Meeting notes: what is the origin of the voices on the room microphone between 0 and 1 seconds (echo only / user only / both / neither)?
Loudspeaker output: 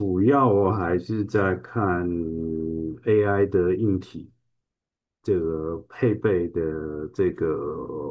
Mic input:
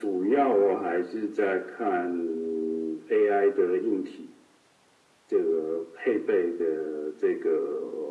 echo only